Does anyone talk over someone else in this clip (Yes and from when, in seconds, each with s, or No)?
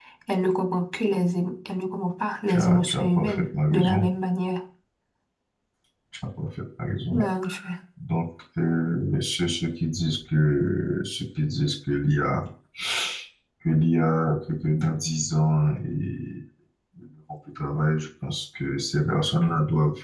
Yes, from 2.5 s